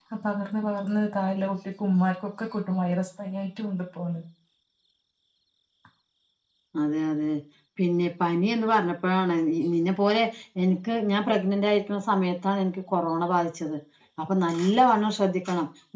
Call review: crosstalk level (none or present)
none